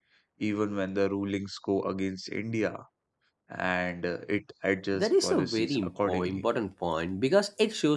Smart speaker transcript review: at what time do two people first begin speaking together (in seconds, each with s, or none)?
4.9 s